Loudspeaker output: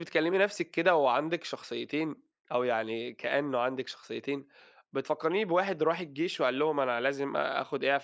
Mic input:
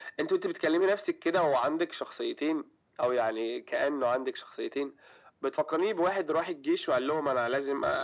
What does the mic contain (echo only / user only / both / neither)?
echo only